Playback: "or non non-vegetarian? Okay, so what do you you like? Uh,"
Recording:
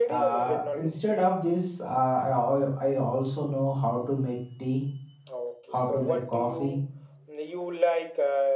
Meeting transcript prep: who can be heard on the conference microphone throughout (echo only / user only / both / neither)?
both